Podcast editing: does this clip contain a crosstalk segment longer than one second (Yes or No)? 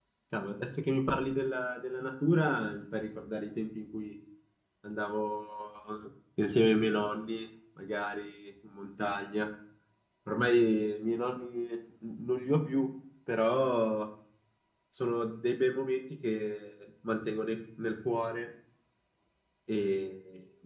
No